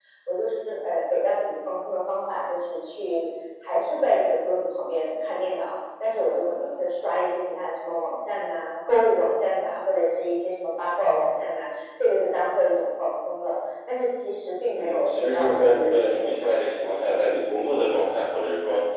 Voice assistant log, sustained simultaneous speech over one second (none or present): present